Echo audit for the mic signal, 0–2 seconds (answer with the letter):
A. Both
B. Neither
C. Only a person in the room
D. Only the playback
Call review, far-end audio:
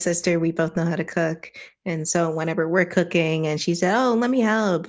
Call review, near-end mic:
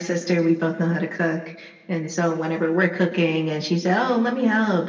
D